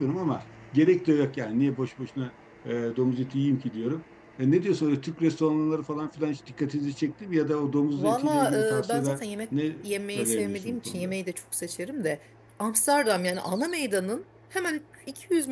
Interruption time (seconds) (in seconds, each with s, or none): 8.0 s